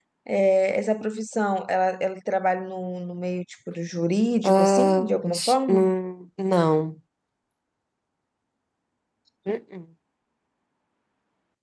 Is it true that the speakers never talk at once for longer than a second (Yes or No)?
No